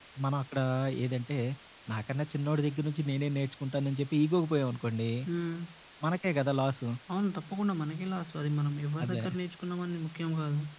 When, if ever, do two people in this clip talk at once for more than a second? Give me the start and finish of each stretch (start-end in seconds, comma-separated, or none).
none